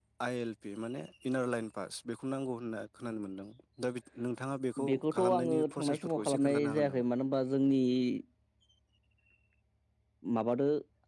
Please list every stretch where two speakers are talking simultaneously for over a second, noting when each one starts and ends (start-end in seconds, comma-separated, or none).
4.8-7.0